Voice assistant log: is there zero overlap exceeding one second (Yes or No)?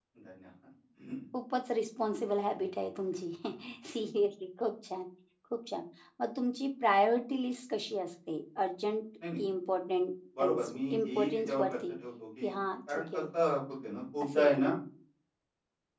No